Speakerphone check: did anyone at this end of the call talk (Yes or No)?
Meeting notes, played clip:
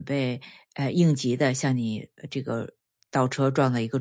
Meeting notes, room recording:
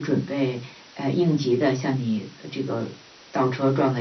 No